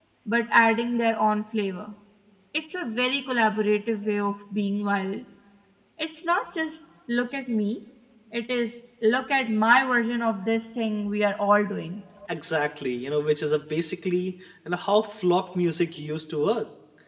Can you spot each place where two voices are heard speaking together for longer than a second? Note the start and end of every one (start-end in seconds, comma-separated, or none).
none